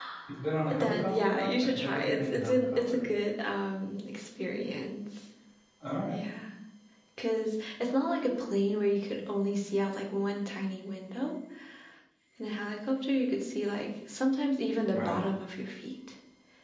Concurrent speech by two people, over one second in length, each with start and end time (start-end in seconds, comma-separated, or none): 0.8-3.0